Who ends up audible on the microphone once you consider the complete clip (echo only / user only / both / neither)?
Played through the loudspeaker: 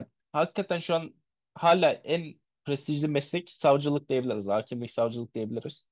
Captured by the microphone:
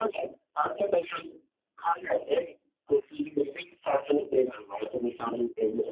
echo only